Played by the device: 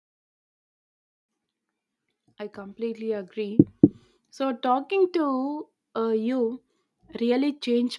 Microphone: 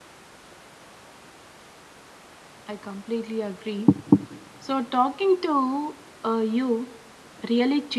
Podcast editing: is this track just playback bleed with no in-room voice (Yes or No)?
Yes